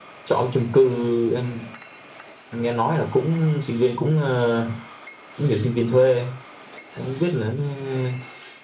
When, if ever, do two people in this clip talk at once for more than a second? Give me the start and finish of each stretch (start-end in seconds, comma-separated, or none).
none